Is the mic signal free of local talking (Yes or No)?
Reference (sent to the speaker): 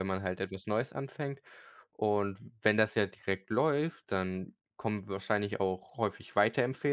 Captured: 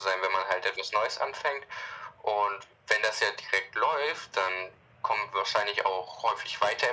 Yes